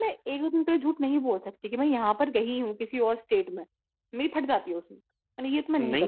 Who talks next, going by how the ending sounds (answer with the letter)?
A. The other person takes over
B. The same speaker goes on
A